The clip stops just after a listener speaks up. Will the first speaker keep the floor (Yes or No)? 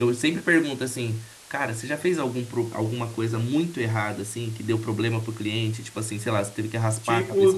No